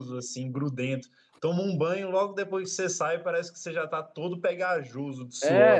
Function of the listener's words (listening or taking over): taking over